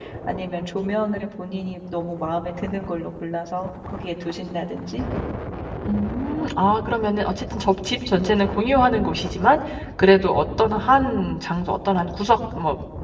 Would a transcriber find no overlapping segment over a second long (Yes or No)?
Yes